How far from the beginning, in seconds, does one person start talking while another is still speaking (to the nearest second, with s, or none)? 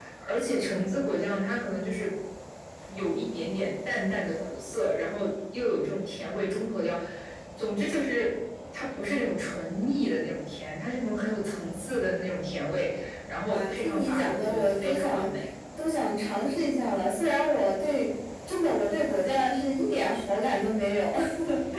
13 s